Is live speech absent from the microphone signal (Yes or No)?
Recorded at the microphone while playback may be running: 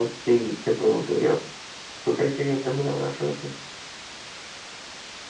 Yes